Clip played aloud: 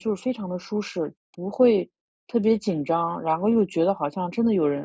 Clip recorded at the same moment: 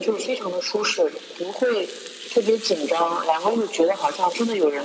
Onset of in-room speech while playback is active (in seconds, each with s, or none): none